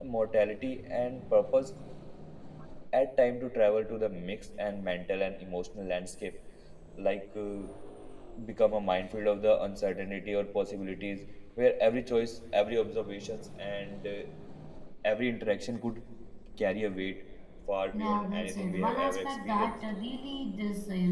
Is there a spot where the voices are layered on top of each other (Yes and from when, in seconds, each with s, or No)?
Yes, from 17.9 s